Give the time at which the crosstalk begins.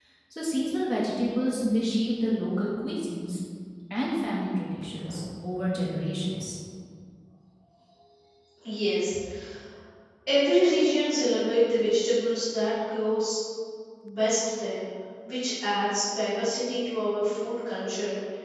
none

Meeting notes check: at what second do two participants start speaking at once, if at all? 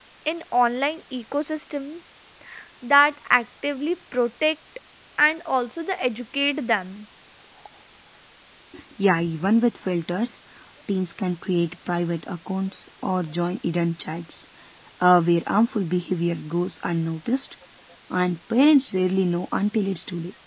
none

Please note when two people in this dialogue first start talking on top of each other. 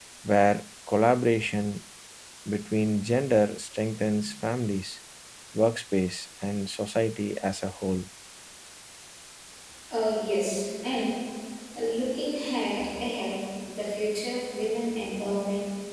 none

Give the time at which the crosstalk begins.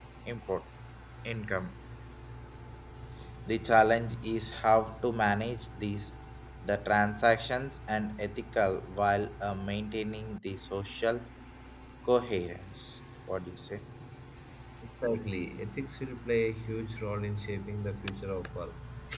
none

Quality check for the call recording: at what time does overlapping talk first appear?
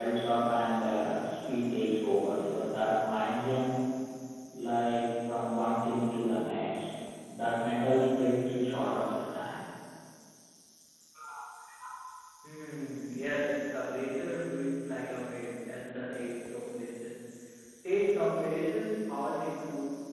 none

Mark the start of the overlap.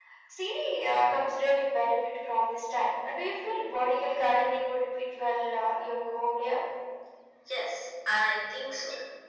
none

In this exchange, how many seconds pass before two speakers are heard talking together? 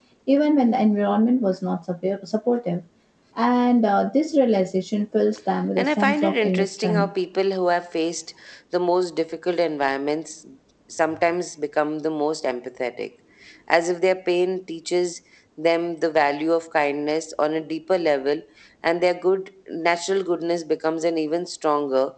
5.8 s

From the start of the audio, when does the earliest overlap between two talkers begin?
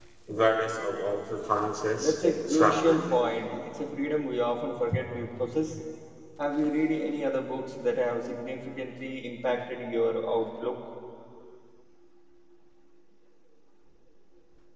2.0 s

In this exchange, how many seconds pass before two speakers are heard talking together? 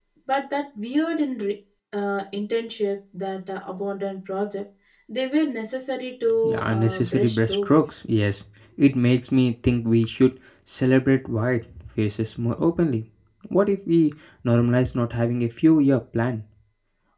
6.4 s

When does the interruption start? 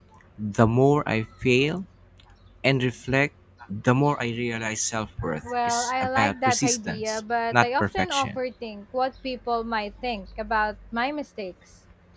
5.4 s

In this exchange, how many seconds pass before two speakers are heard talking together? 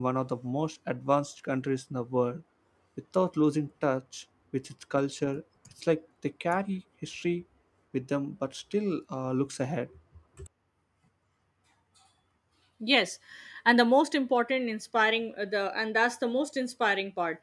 none

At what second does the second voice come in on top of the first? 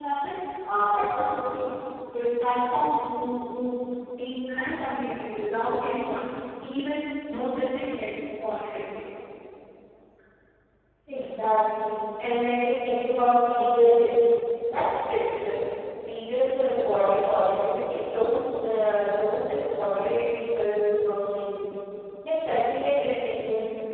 none

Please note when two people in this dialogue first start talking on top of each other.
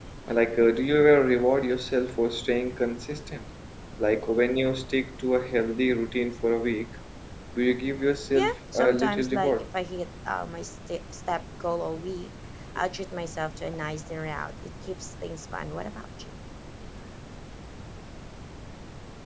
8.3 s

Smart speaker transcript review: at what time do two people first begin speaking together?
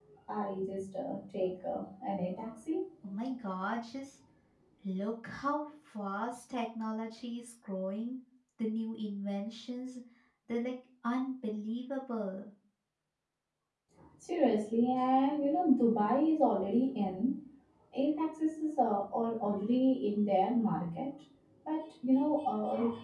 none

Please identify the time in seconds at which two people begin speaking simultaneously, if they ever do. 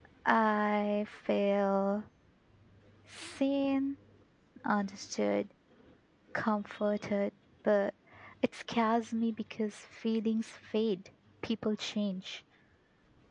none

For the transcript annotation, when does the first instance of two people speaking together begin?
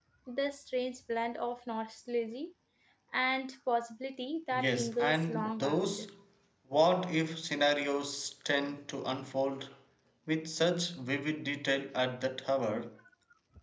4.5 s

